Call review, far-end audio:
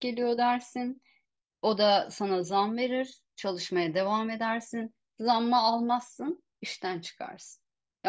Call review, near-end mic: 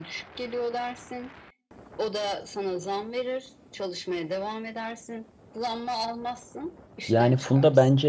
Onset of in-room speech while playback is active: 7.1 s

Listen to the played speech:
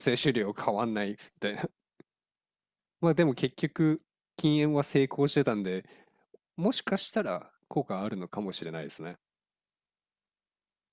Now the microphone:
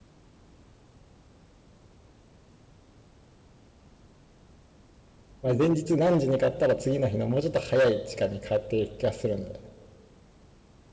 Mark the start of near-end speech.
5.4 s

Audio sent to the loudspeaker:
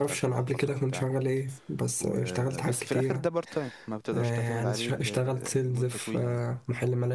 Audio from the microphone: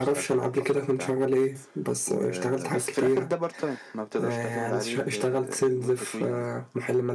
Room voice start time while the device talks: none

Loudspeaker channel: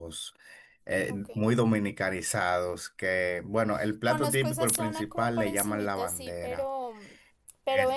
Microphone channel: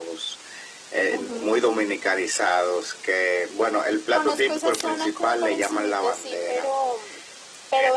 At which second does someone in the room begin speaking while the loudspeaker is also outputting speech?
1.1 s

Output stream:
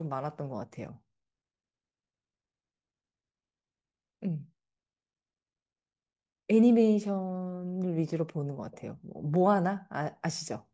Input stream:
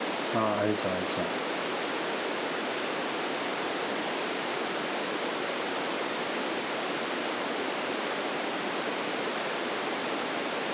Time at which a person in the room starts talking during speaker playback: 0.3 s

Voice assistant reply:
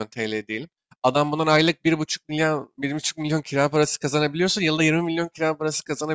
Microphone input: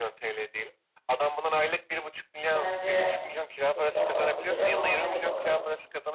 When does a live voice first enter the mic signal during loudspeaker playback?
2.5 s

